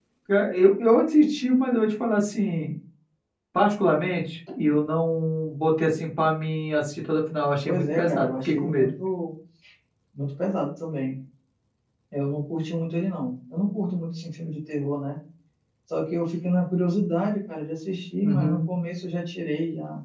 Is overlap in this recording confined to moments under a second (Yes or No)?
No